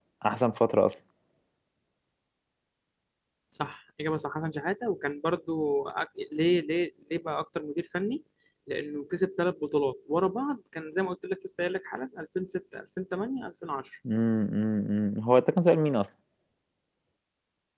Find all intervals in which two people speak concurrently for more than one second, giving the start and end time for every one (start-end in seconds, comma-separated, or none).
none